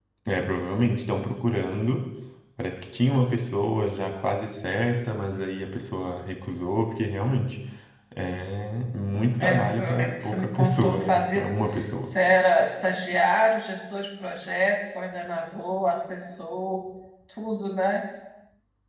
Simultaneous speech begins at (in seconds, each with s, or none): 9.4 s